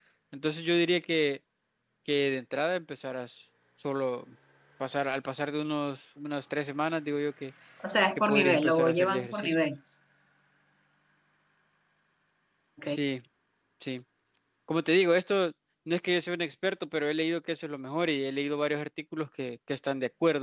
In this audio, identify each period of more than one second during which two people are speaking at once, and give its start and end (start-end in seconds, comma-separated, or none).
8.2-9.6